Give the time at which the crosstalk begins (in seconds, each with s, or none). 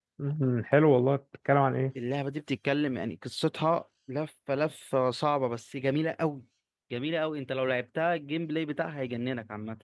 none